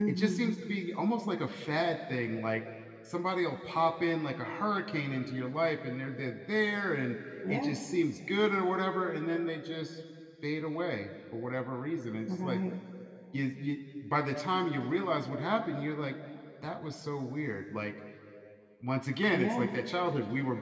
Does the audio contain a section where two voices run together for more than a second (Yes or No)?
No